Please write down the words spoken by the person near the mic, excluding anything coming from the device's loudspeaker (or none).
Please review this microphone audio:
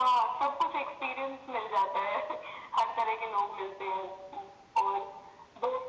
none